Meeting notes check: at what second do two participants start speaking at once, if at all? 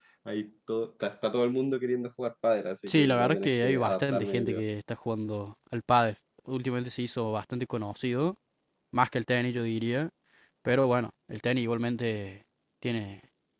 2.9 s

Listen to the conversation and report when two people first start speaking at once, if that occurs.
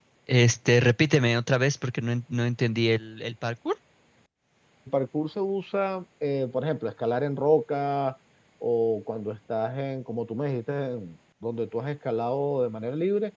none

